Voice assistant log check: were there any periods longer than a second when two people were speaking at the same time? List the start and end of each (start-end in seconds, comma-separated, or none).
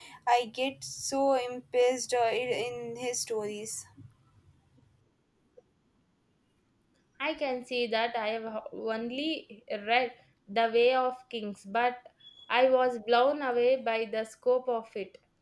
none